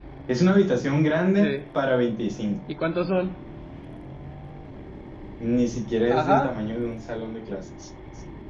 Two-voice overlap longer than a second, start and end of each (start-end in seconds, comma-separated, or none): none